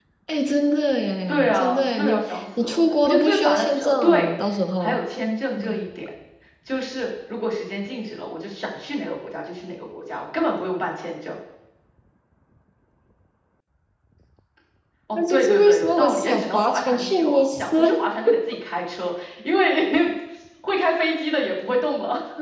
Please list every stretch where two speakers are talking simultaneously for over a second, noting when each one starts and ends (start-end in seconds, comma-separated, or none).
1.3-4.3, 15.2-17.9